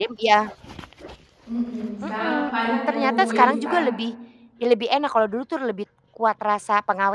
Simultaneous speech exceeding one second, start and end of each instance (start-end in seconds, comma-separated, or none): 2.0-3.8